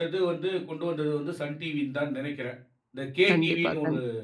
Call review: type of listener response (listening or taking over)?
taking over